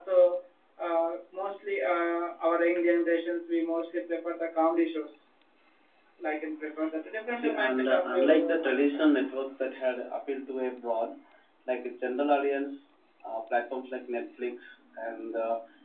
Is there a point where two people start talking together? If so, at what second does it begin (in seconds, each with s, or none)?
7.3 s